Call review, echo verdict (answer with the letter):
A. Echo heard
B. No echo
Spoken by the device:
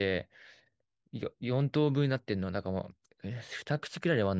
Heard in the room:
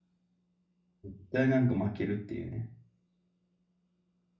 B